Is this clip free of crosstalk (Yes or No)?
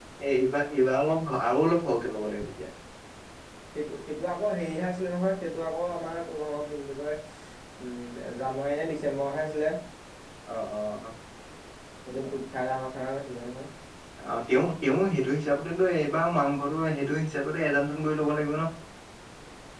Yes